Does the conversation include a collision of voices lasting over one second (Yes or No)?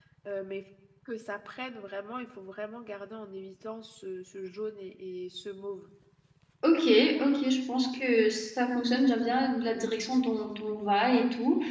No